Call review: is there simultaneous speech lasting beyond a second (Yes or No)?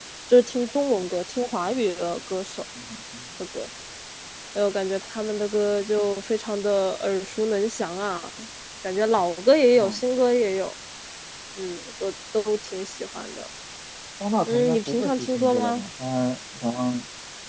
Yes